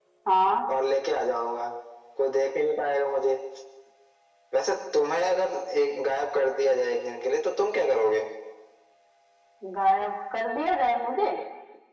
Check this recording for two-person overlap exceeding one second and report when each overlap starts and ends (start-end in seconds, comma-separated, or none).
none